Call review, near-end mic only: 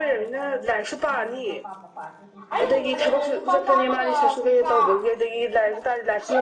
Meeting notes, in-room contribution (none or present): present